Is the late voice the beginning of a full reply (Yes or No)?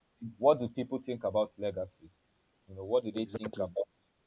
No